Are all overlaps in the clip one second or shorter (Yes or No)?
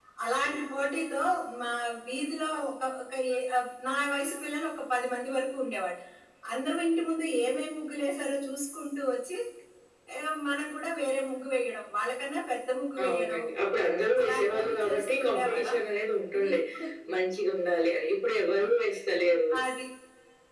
No